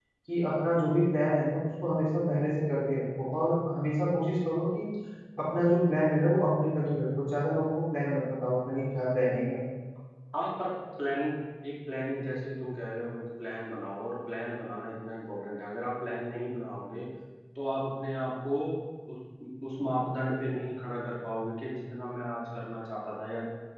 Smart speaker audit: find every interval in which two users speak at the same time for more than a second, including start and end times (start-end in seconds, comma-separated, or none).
none